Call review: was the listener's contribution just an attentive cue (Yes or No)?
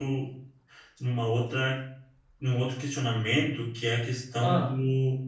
Yes